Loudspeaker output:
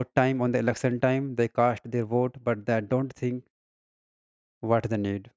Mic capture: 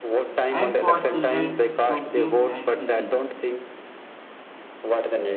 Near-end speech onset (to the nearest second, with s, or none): 0 s